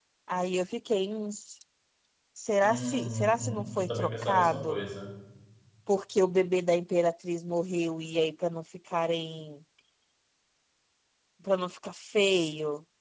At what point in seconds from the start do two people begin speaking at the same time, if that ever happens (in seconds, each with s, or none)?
2.6 s